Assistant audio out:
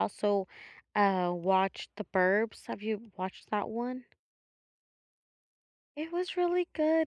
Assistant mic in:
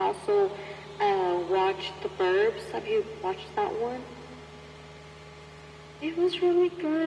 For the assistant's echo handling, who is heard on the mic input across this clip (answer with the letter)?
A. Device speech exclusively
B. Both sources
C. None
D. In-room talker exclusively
A